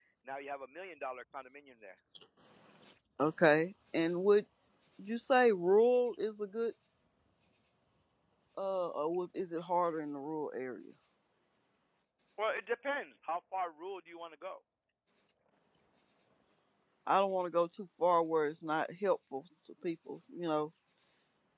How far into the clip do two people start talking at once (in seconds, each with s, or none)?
none